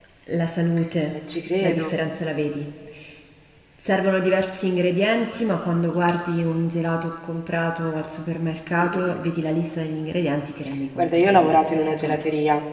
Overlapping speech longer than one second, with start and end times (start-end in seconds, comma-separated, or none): 11.0-12.2